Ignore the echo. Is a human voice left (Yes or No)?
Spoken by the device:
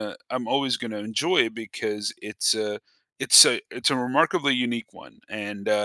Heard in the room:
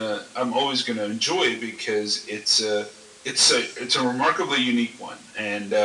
No